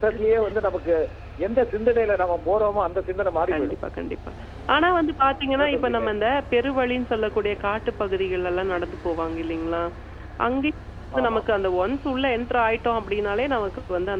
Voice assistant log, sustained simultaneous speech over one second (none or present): none